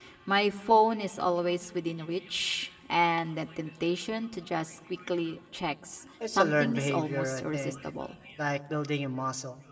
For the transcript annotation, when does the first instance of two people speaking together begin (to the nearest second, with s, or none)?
6 s